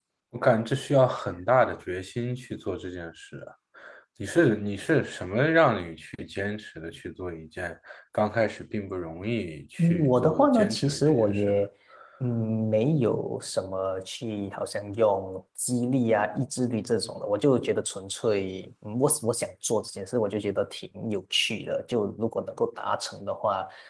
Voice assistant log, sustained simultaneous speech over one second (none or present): present